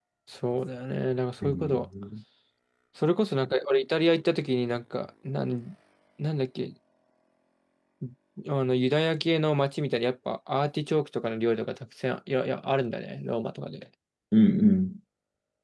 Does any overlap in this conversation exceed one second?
No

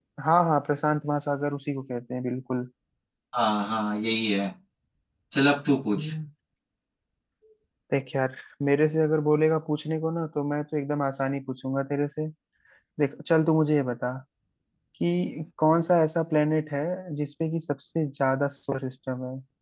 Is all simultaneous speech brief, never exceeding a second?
Yes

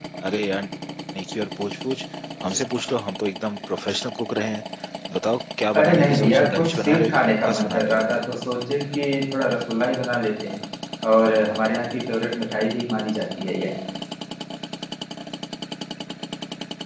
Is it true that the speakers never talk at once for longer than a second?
No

